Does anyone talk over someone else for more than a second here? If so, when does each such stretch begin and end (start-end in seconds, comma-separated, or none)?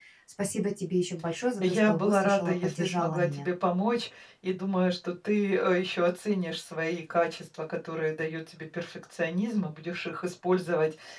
1.6-3.5